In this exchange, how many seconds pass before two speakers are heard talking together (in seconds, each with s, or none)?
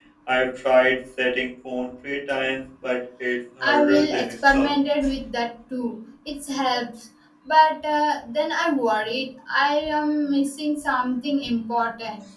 3.6 s